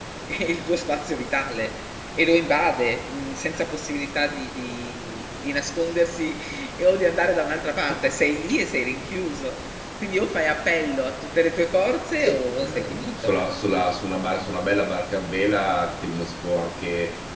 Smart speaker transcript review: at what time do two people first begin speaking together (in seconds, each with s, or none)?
12.2 s